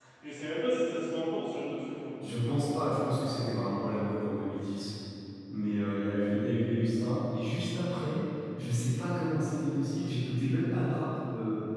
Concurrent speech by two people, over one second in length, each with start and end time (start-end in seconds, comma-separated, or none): none